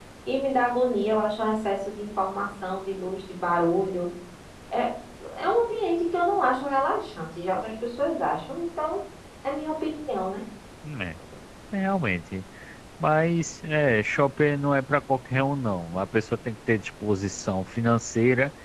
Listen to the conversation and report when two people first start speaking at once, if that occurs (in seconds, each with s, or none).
none